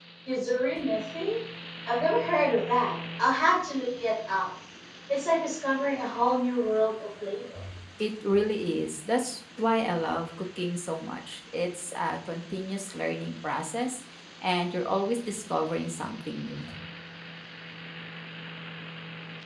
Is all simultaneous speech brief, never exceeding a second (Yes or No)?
Yes